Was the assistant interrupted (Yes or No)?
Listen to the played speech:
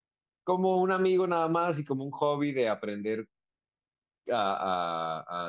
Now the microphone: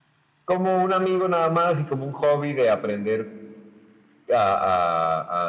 No